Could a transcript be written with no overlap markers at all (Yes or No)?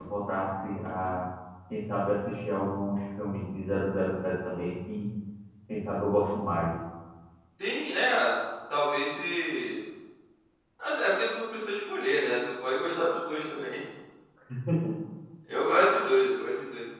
Yes